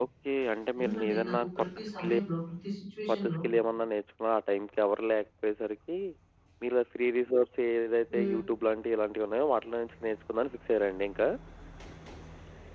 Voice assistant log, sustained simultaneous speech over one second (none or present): present